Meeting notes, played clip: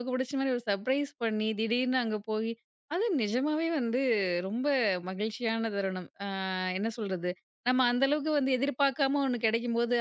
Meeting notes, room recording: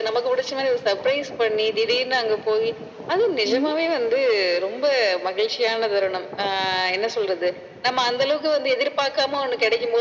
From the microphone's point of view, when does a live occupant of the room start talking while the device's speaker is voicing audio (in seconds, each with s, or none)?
3.4 s